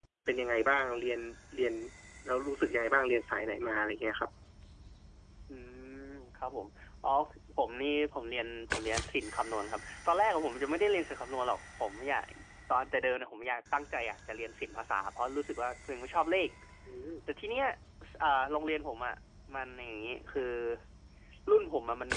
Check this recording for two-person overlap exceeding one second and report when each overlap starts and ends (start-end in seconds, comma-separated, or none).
none